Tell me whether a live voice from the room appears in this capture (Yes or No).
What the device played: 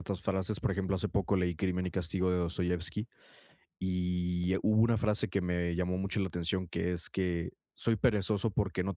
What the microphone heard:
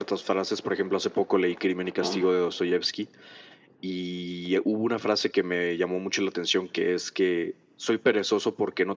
Yes